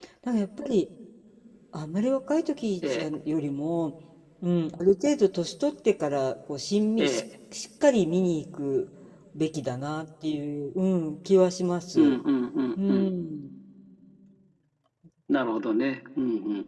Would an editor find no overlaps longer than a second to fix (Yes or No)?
Yes